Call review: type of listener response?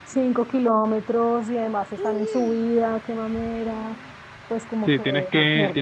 taking over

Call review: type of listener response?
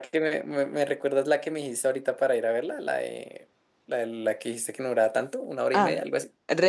taking over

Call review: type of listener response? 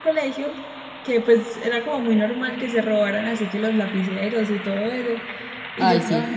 listening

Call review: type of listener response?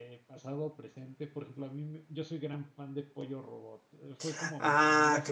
taking over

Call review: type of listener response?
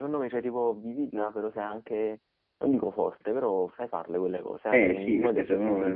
taking over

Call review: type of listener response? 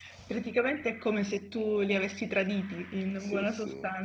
taking over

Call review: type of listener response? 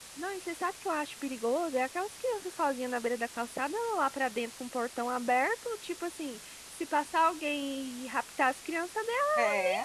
listening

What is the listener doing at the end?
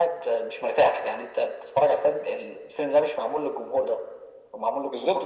taking over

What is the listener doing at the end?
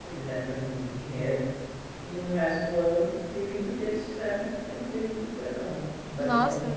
taking over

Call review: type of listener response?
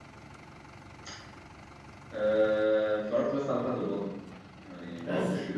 listening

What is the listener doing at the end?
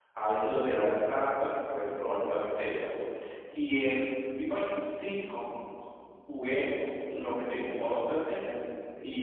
listening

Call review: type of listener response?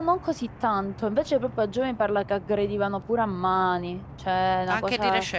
taking over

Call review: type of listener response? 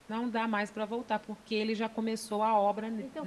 taking over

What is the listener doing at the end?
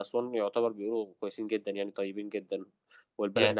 listening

